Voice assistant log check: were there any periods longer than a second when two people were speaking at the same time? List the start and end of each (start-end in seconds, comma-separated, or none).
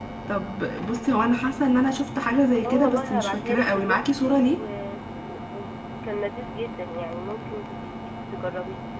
2.6-4.6